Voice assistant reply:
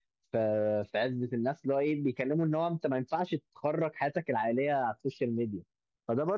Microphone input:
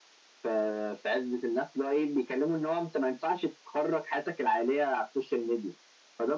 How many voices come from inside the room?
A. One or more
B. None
B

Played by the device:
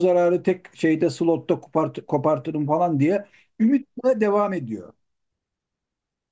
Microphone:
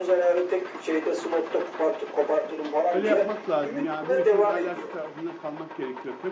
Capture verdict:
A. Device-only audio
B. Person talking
B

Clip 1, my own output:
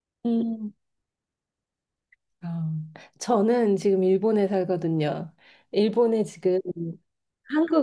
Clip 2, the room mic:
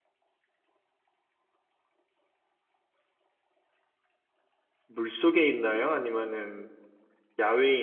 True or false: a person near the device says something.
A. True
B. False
A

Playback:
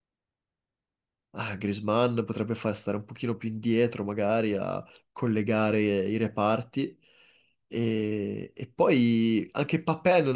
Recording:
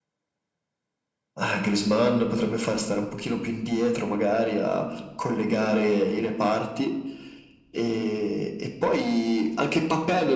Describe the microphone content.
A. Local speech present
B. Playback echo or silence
B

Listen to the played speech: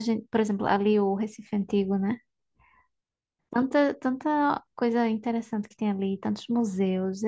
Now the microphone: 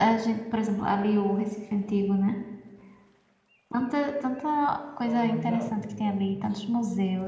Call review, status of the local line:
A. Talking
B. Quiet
A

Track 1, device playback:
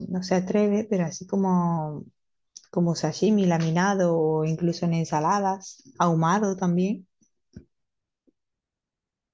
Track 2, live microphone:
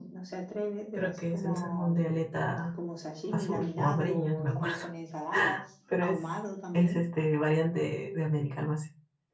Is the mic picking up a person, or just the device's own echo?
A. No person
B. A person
B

